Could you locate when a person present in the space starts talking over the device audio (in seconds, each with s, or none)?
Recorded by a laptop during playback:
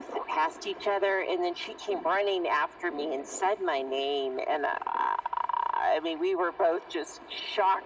none